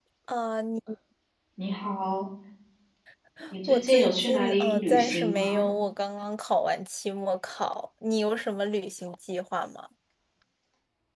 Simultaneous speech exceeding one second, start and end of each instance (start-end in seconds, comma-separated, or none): 3.7-5.7